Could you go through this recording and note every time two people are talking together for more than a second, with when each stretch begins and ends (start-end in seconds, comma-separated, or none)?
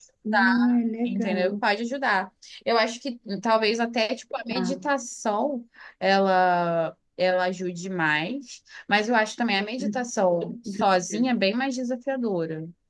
none